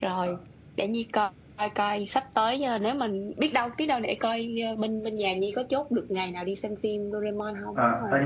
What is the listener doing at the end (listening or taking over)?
taking over